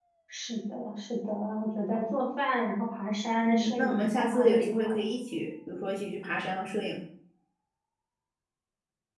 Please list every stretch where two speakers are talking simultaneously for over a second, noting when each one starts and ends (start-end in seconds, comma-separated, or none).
3.4-4.9